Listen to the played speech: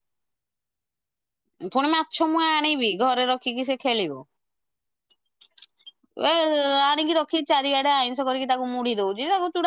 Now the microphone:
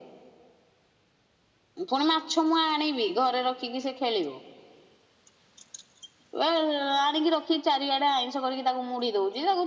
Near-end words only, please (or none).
none